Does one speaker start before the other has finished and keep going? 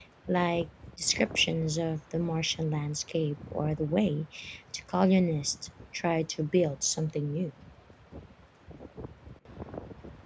No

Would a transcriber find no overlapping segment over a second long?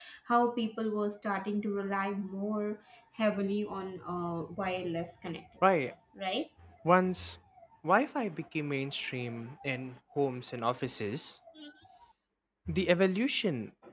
Yes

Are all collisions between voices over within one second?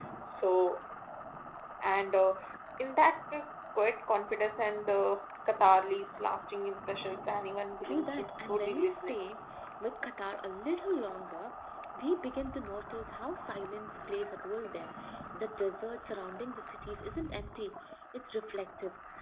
No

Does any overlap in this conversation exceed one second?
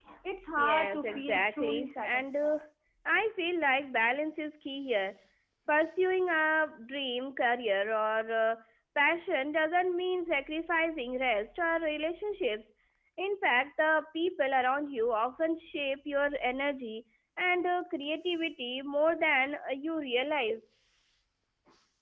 Yes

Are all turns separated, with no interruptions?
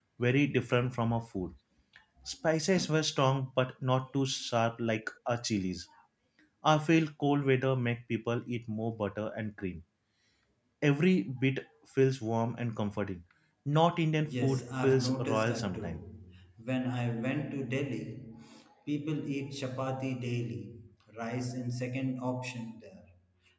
No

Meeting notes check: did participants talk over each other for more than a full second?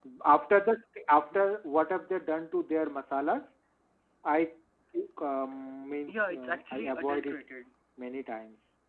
Yes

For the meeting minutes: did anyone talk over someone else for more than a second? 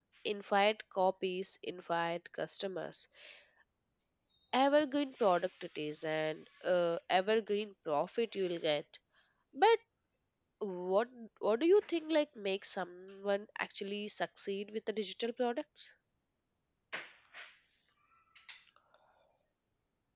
No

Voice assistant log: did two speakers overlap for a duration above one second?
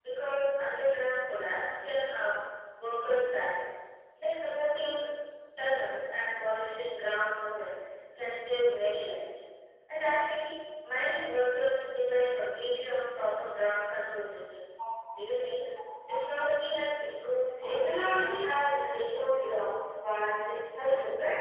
Yes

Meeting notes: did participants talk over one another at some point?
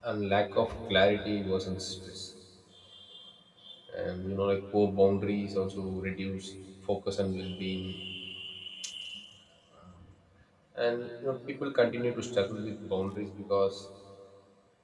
No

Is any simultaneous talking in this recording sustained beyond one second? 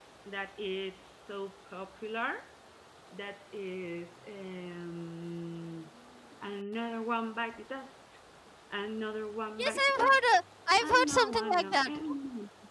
Yes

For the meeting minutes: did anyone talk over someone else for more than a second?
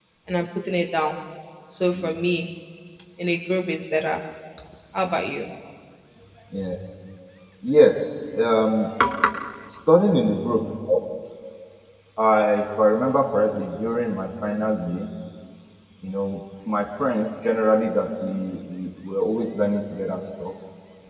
No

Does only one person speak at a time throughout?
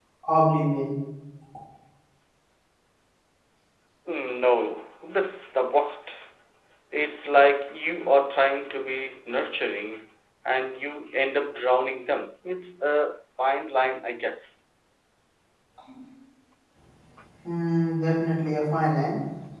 Yes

